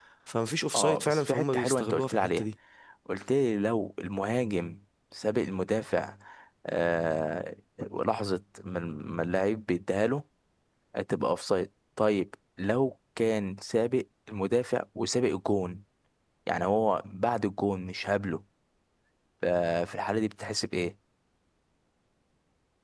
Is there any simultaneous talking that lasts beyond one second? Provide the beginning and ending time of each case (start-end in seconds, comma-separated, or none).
0.8-2.4